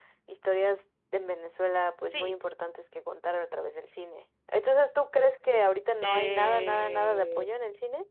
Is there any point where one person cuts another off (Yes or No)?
Yes